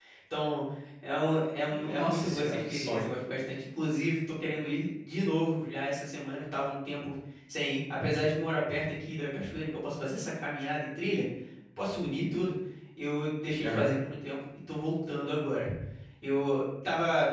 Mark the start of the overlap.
1.7 s

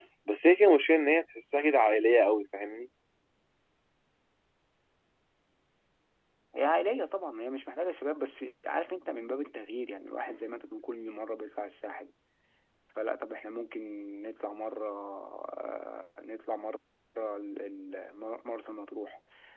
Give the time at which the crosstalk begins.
none

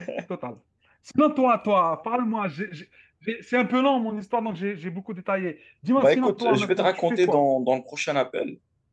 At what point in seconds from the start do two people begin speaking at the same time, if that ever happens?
6.0 s

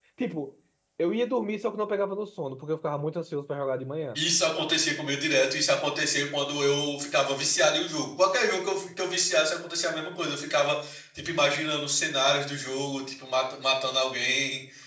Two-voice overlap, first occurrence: none

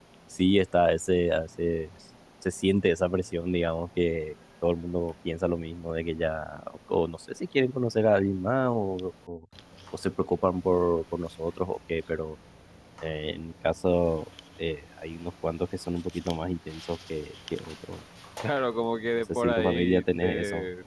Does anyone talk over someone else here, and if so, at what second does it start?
19.3 s

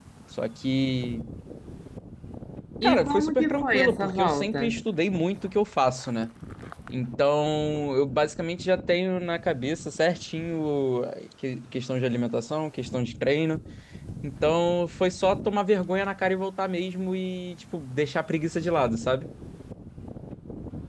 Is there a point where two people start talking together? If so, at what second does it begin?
2.8 s

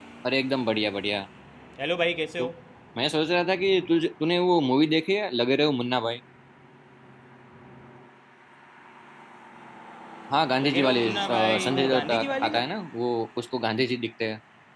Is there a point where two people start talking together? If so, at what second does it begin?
10.6 s

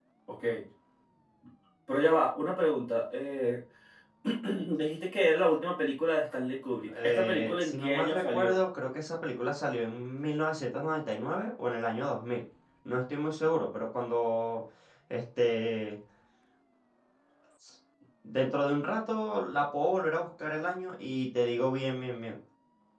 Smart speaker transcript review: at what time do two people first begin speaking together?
6.9 s

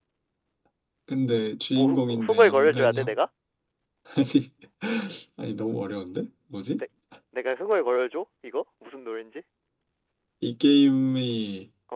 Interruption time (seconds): 1.7 s

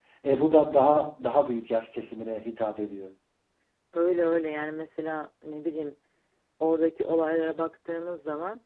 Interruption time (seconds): none

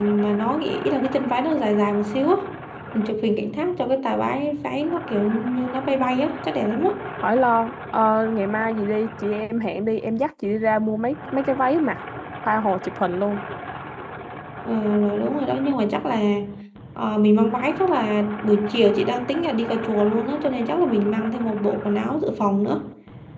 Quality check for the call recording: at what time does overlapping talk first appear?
none

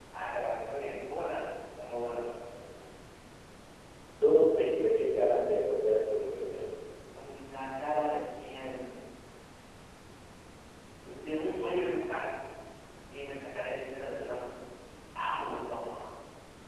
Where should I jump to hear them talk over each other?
none

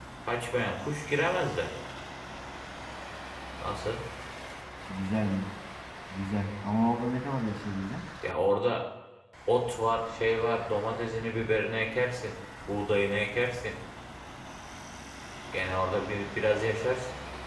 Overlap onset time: none

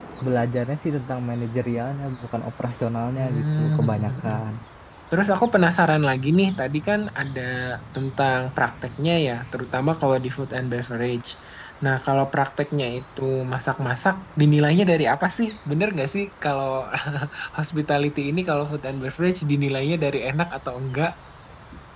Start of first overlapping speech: 3.2 s

